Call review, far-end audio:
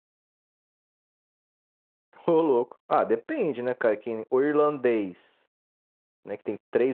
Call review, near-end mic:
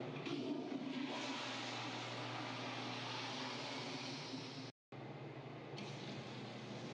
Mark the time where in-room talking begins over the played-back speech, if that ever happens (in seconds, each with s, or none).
none